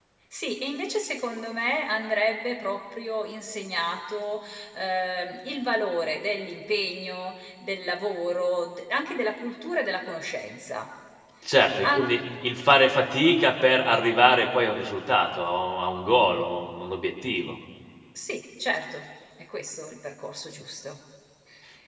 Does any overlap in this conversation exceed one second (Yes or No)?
No